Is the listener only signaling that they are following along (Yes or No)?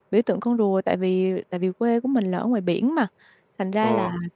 Yes